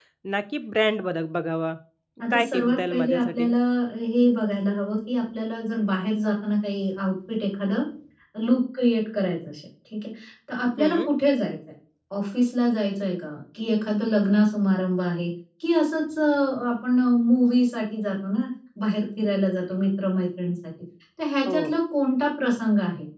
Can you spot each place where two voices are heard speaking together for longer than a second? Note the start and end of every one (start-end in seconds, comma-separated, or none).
2.3-3.5